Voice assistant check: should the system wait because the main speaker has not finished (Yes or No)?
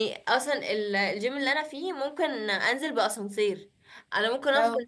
Yes